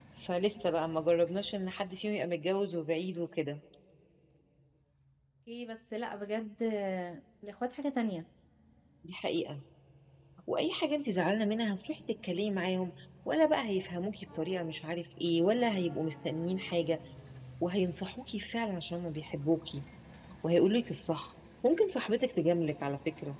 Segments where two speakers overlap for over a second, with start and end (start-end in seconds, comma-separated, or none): none